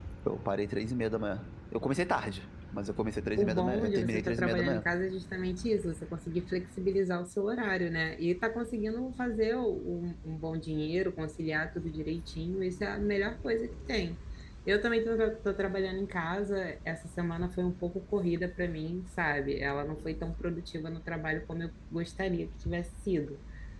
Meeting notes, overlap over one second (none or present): present